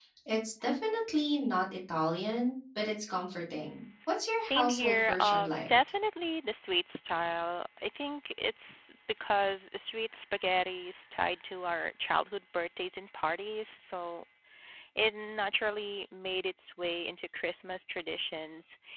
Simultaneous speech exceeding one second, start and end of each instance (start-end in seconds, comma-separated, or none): 4.4-5.7